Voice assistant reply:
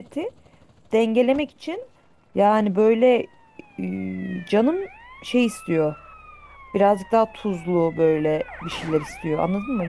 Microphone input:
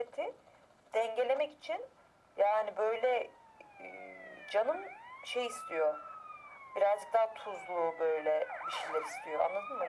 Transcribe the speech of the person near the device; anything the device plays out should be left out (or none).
none